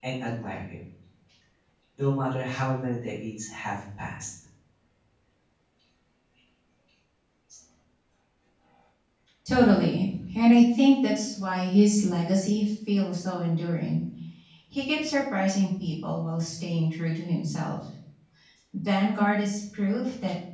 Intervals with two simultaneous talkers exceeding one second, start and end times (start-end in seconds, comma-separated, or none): none